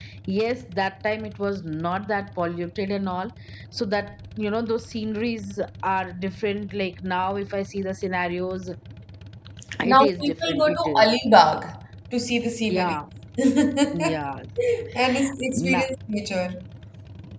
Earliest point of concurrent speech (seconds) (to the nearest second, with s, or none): 10 s